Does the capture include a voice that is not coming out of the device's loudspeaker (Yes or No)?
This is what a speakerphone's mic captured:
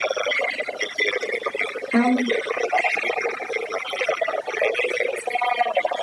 Yes